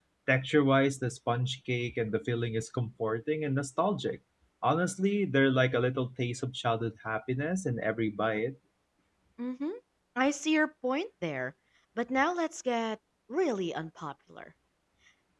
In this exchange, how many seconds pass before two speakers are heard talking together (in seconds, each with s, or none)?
none